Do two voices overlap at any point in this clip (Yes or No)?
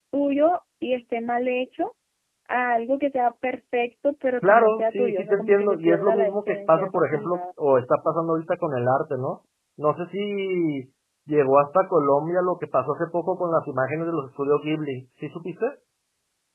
Yes